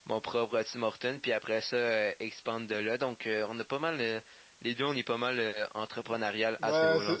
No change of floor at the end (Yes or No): No